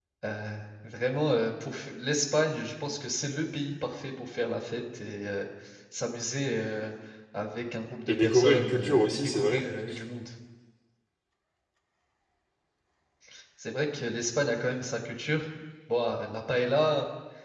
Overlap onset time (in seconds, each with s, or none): 8.1 s